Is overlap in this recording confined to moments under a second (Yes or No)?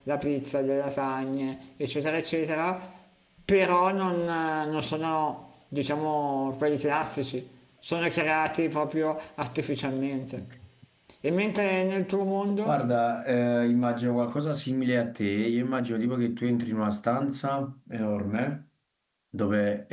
Yes